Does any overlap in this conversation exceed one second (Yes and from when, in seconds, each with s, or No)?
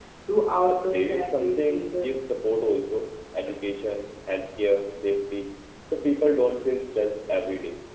Yes, from 0.7 s